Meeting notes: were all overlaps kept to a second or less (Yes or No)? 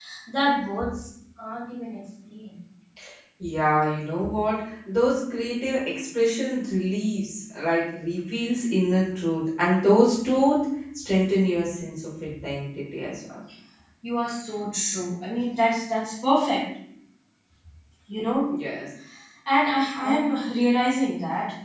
Yes